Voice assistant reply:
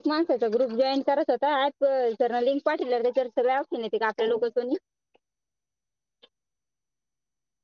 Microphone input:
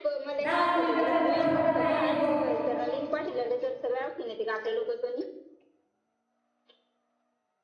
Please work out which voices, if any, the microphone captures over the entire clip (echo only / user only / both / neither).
both